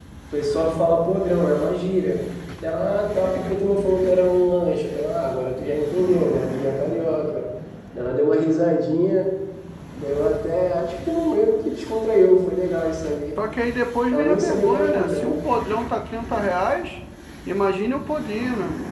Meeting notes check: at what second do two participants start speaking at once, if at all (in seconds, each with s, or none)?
14.1 s